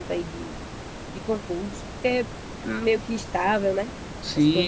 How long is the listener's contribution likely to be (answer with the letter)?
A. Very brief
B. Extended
B